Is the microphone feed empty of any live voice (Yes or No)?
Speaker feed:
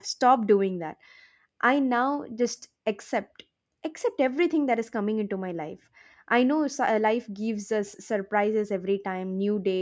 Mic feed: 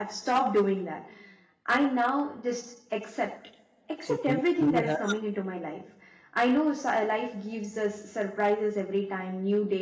No